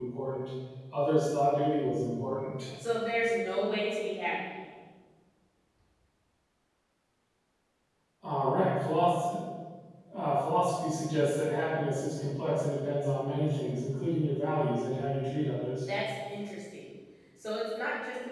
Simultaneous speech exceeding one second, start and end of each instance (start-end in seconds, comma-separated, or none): none